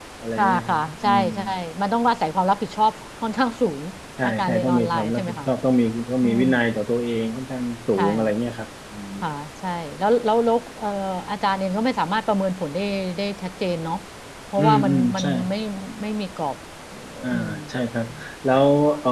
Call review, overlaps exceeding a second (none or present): present